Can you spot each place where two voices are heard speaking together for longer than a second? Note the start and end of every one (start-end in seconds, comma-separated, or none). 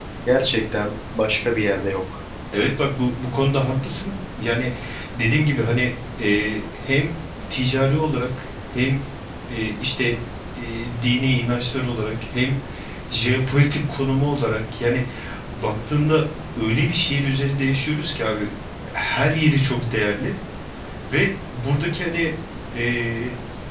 none